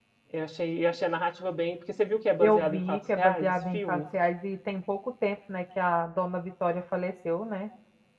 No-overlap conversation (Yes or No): No